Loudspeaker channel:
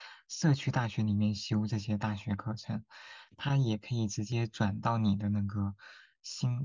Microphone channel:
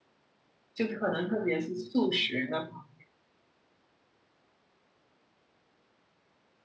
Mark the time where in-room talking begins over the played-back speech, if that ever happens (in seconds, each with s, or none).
0.7 s